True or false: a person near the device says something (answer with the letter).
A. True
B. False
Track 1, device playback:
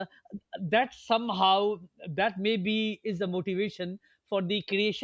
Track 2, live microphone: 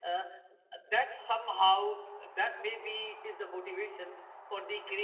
B